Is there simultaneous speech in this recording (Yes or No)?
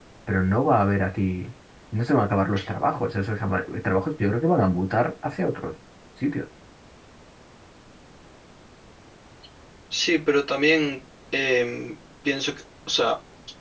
No